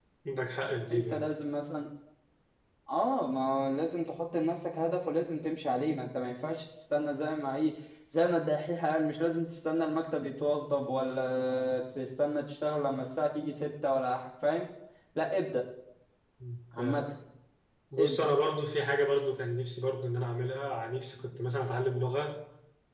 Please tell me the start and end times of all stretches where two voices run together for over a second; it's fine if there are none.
none

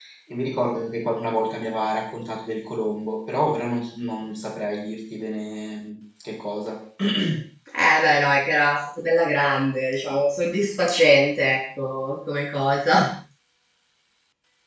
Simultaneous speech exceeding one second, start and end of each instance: none

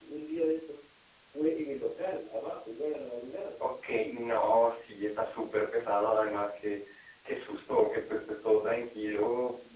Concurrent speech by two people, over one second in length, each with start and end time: none

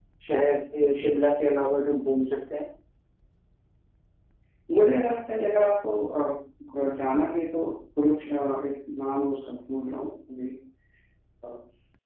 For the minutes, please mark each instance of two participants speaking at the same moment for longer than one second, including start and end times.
none

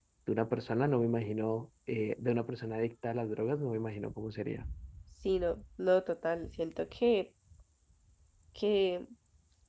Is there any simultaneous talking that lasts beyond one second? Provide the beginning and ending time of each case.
none

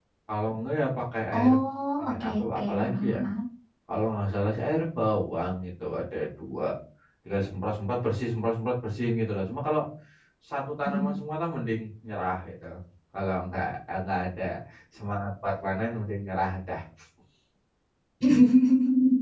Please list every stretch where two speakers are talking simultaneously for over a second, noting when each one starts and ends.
2.0-3.2

